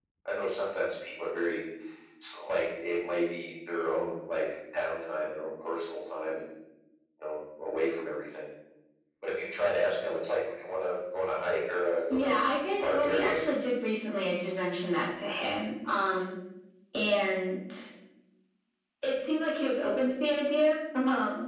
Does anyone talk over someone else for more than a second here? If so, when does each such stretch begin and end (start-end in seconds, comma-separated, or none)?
12.1-13.4